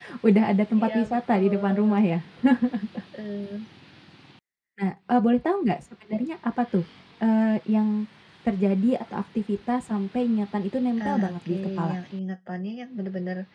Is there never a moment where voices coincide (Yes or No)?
No